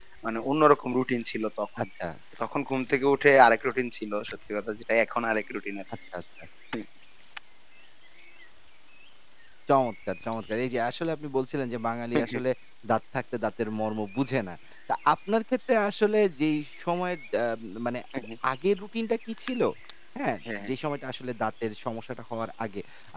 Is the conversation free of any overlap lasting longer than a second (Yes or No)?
Yes